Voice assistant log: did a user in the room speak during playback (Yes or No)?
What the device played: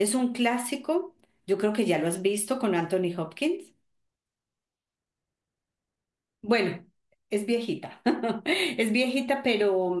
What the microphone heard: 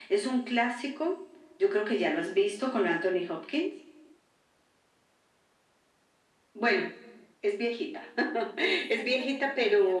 Yes